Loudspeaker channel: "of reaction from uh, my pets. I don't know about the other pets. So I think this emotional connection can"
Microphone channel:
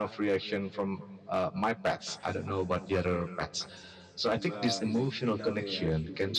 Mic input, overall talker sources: both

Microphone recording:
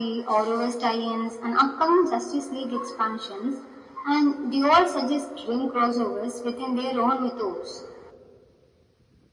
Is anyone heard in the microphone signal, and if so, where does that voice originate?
echo only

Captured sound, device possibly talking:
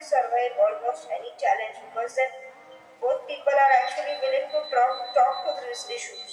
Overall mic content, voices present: echo only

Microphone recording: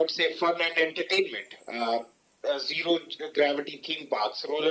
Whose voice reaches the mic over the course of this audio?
echo only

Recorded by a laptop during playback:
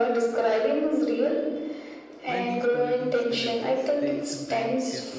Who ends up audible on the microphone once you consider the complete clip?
both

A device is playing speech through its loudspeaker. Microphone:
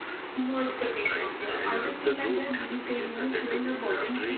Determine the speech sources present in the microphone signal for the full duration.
both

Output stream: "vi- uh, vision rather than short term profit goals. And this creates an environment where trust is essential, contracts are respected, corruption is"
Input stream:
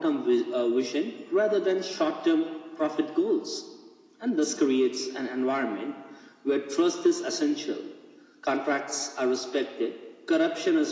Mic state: echo only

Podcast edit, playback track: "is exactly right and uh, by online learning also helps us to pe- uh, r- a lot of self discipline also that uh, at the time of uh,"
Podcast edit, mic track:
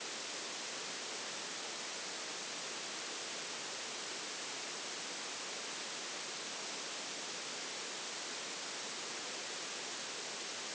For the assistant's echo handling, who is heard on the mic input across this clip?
neither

